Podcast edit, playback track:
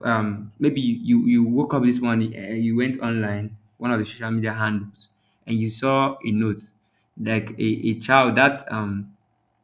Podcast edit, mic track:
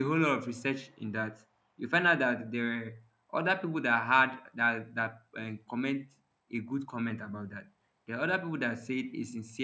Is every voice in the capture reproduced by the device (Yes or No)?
No